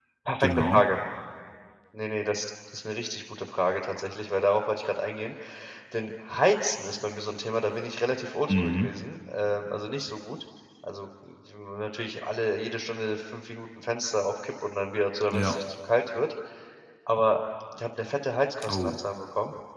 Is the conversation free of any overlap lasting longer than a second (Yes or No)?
Yes